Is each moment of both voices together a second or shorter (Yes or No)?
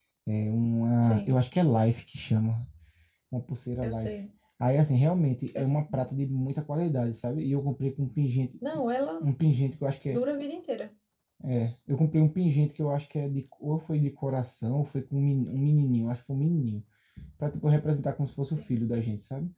Yes